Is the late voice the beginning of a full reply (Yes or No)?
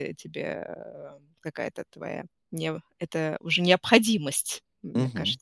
Yes